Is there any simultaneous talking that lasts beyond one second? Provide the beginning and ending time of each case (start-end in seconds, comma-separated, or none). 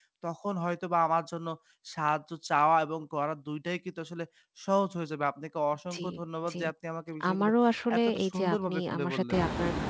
8.0-9.4